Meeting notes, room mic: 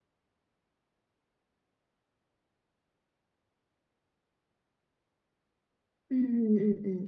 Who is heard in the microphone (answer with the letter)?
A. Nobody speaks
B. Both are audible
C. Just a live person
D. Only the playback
C